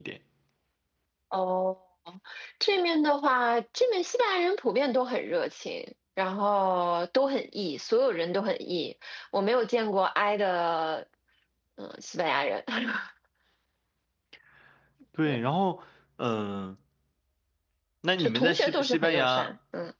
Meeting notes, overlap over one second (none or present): present